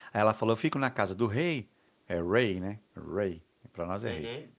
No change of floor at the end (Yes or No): Yes